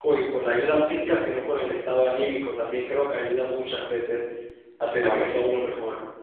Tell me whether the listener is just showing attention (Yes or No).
Yes